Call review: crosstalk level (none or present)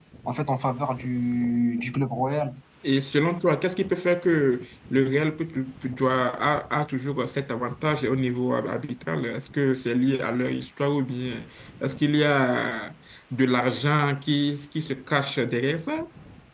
none